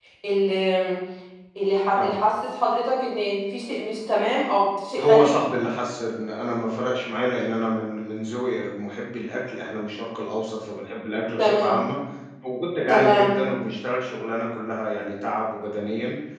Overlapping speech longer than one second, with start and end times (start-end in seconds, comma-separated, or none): none